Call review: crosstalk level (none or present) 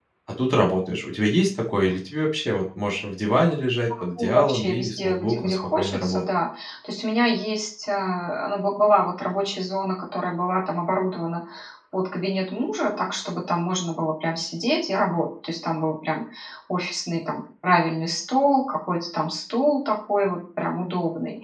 present